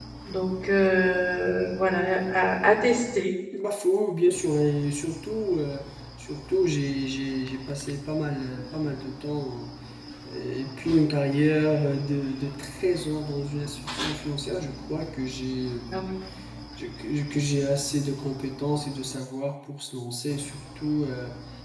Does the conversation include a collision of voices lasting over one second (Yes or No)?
No